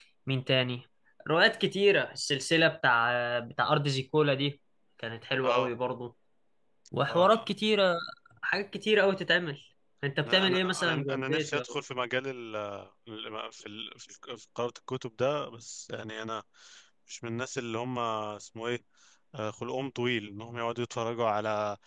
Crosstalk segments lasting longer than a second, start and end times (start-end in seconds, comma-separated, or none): 10.2-11.8